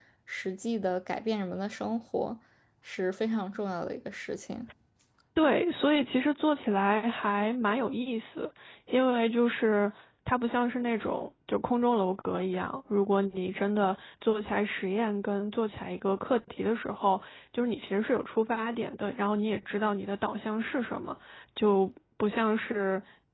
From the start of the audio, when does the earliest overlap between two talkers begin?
none

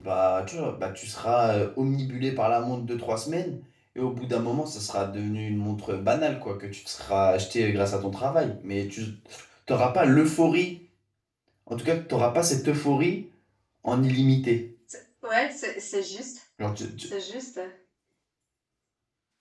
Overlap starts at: none

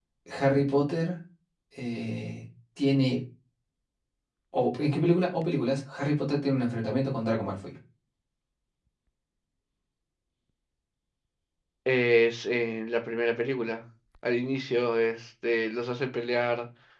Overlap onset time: none

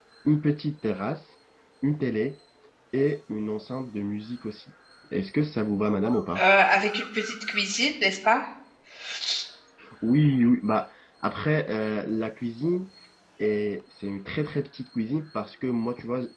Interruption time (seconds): none

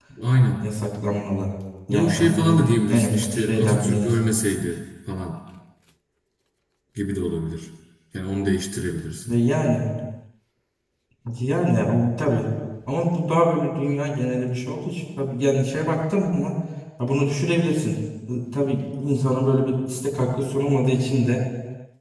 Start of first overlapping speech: 2 s

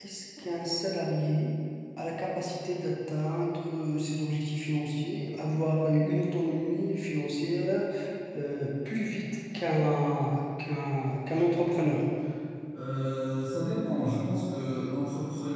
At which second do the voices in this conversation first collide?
none

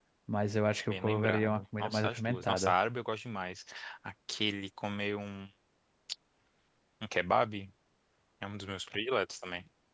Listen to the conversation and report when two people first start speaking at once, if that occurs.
1 s

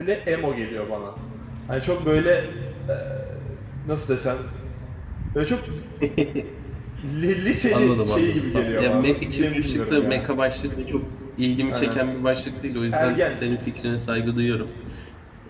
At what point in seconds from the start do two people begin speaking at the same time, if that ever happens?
8 s

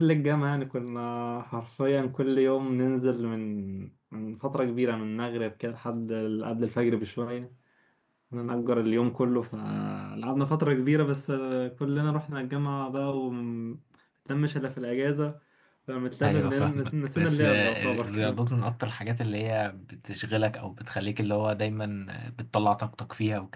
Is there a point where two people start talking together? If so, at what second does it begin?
16 s

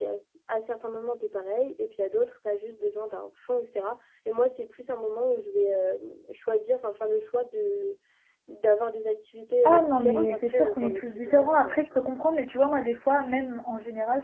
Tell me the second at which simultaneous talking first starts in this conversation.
10 s

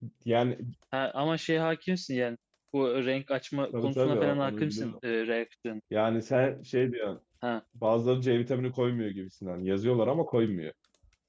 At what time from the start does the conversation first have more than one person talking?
4 s

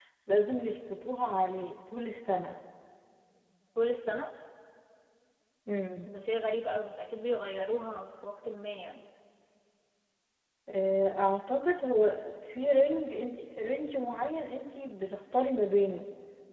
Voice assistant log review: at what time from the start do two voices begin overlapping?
none

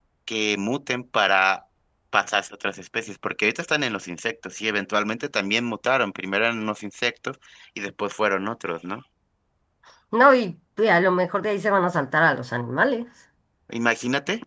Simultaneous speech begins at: none

